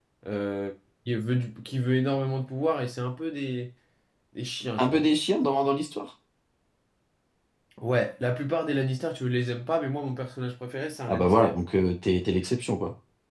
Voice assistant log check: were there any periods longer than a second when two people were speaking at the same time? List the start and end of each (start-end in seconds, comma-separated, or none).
none